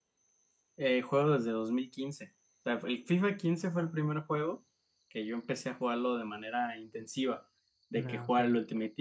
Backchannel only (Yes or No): Yes